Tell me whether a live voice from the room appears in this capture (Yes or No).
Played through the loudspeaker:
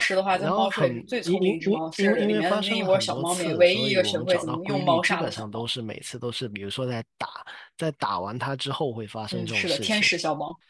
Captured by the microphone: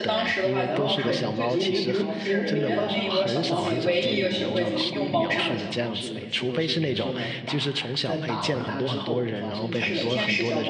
Yes